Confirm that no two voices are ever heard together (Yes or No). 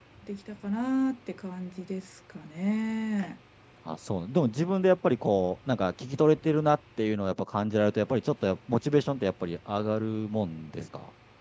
Yes